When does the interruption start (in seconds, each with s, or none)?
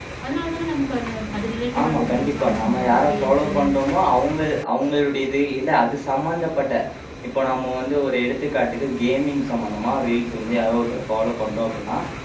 1.7 s